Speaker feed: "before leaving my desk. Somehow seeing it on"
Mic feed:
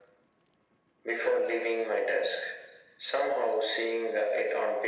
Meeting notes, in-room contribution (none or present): none